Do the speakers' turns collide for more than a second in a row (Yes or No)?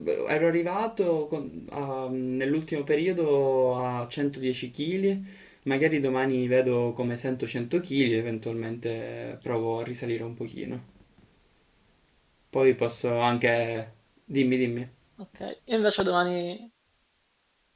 No